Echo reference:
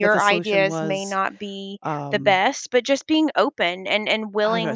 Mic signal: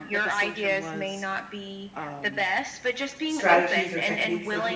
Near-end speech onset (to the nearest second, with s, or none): 3 s